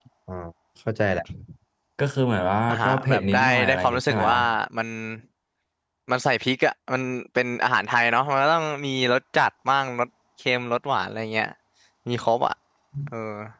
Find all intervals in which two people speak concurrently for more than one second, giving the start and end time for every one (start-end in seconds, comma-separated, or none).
2.7-4.3